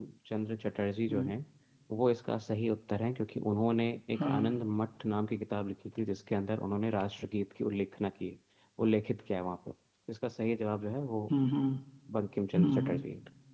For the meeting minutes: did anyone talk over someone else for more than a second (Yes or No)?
No